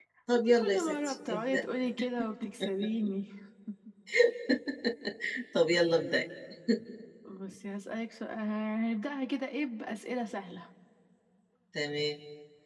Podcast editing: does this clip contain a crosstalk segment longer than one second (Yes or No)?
Yes